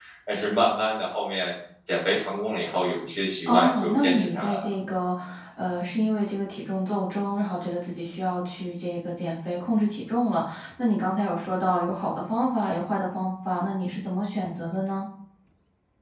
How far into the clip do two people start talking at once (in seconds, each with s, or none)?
3.5 s